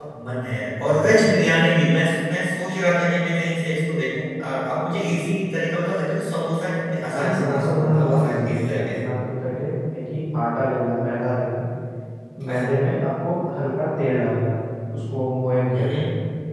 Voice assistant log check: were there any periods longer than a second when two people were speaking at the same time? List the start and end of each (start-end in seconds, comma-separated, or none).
7.1-9.0